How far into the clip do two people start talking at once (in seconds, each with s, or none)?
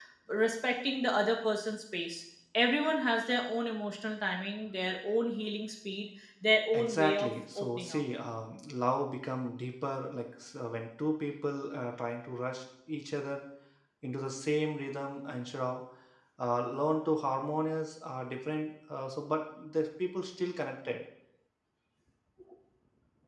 6.7 s